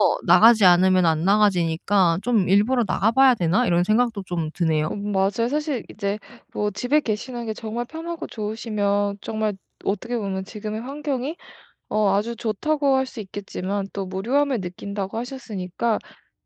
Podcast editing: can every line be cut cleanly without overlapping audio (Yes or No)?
Yes